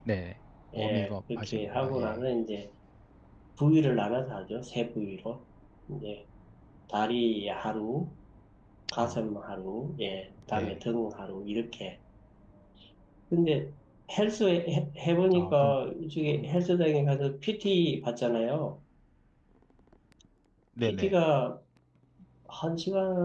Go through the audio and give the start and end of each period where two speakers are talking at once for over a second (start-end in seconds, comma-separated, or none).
0.8-2.2